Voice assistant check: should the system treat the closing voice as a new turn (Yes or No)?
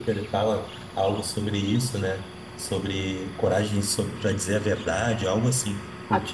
Yes